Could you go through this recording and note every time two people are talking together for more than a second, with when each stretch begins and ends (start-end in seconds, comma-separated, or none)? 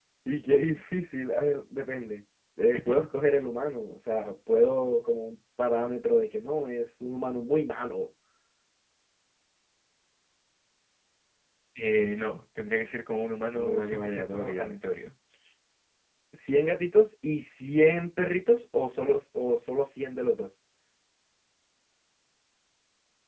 13.5-14.8